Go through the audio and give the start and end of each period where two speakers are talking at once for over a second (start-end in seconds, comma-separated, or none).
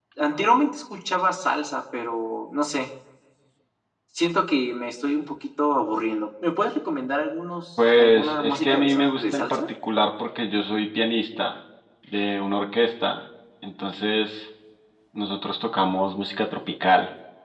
7.8-9.6